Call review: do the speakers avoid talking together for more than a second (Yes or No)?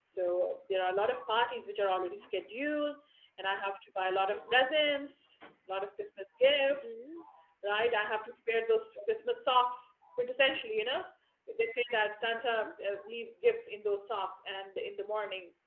Yes